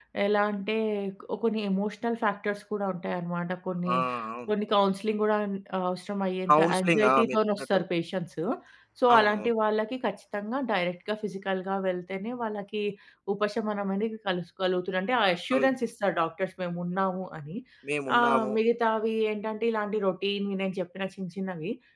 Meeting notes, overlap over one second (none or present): present